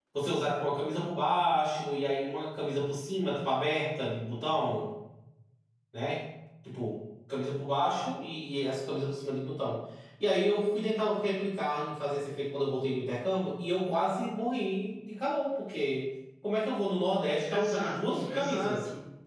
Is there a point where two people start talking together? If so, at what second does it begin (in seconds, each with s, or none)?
17.5 s